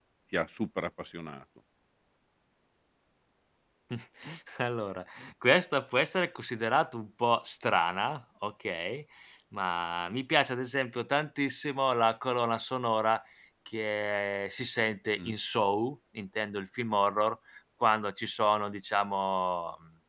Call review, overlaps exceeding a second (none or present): none